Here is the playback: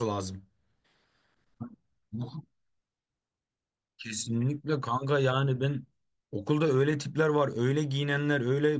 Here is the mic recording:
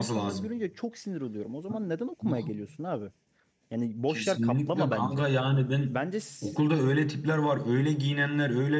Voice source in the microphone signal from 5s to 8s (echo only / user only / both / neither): both